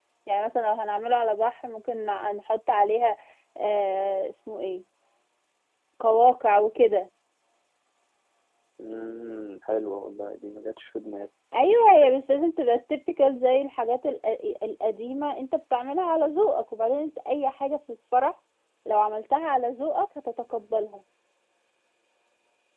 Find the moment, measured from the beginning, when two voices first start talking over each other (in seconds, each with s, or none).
none